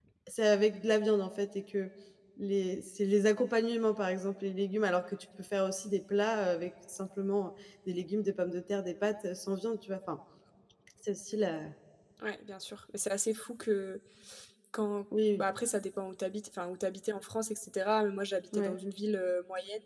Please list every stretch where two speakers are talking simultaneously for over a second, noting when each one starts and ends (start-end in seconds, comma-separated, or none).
none